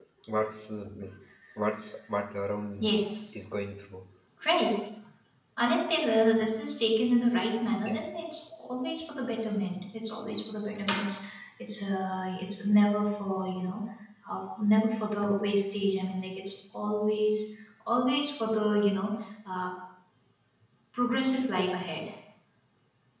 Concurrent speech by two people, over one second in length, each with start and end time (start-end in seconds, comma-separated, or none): none